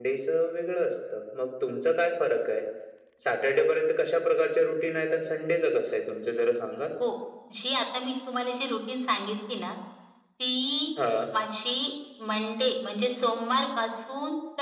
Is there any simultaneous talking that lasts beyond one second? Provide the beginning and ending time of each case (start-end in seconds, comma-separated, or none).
none